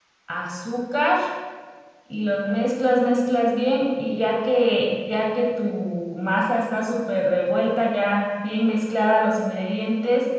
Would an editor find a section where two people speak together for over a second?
No

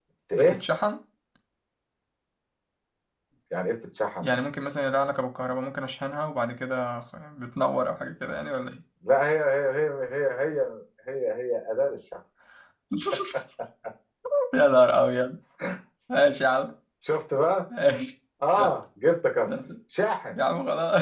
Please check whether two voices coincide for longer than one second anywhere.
No

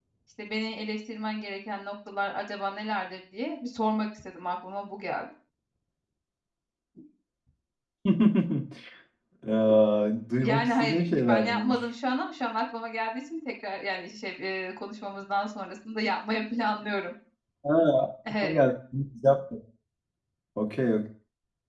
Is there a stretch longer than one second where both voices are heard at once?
Yes, from 10.4 s

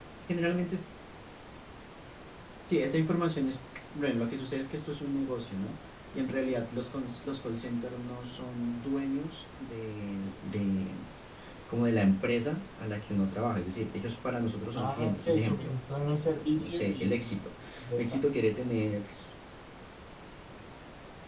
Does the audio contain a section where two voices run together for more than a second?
Yes, from 14.8 s

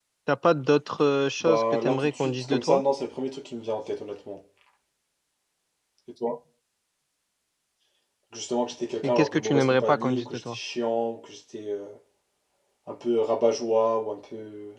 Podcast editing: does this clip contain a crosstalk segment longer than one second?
Yes, from 1.4 s

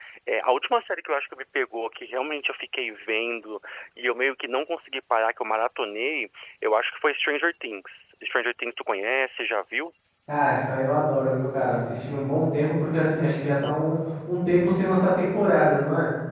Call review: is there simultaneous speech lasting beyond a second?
No

